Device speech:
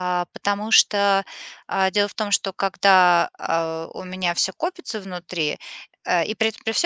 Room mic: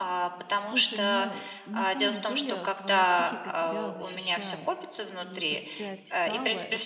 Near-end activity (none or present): present